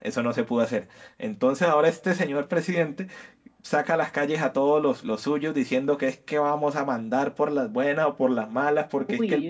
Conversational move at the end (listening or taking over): listening